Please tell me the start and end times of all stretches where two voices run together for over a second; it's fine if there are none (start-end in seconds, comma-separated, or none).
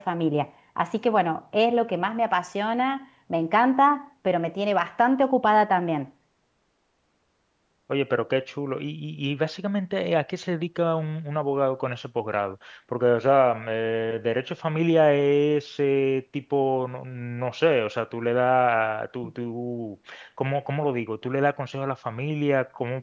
none